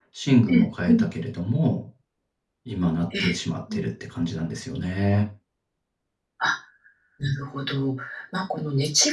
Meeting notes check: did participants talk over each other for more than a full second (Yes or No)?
No